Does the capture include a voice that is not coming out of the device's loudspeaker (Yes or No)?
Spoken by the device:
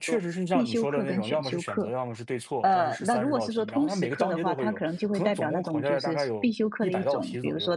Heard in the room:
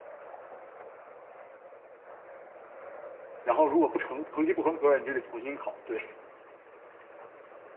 Yes